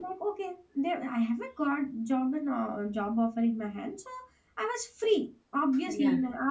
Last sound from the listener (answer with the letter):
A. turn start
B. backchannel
B